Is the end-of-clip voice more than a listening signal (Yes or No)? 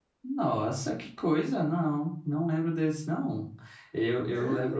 No